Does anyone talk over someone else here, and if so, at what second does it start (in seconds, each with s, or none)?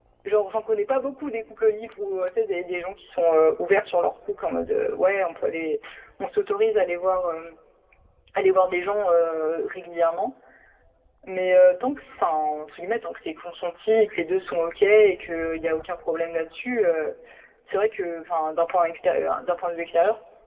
none